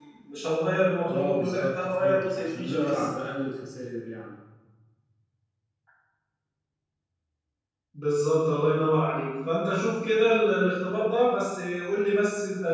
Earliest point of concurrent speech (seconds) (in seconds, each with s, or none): 1.1 s